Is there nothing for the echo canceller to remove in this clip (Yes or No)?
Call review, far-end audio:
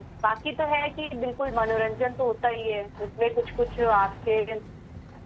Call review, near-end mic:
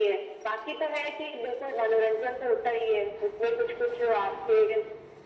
No